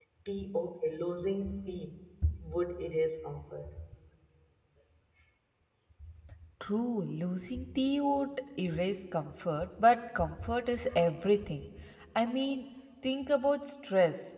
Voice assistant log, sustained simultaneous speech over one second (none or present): none